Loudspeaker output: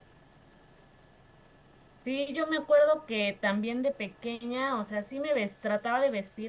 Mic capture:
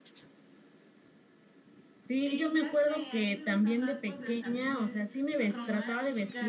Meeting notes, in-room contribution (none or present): present